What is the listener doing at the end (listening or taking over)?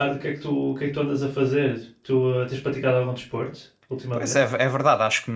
taking over